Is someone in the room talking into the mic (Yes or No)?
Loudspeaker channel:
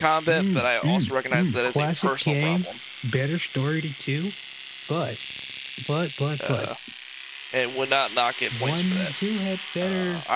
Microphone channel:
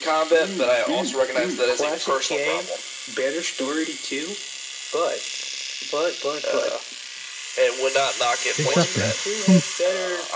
Yes